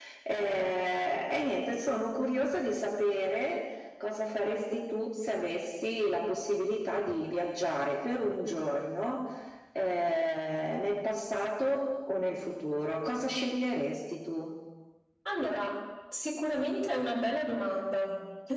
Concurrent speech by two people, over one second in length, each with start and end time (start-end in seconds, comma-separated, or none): none